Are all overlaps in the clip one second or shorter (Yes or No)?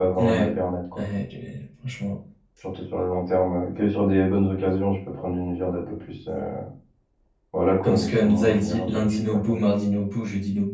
No